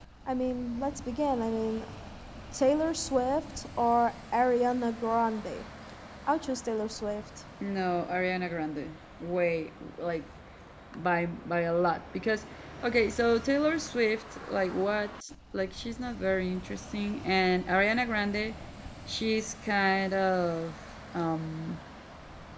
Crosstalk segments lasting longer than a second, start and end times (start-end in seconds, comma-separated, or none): none